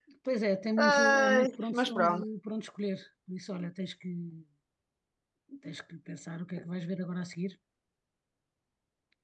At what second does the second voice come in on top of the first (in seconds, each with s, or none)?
0.8 s